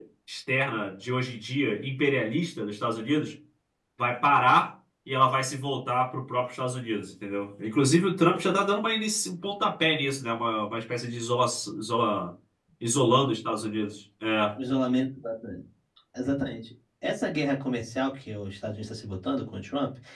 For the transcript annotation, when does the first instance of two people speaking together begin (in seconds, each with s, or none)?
none